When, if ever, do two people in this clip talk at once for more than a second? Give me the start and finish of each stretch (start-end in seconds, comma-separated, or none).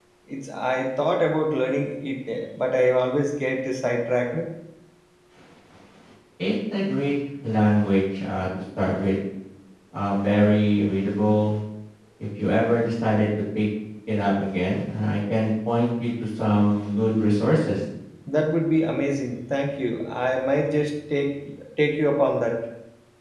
none